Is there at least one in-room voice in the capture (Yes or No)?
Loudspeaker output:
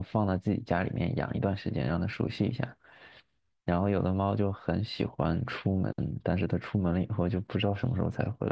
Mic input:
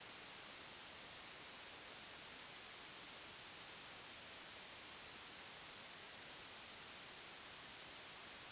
No